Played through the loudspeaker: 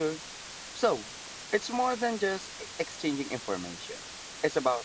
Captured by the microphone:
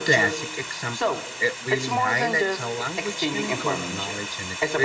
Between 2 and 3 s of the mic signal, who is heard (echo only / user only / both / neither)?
both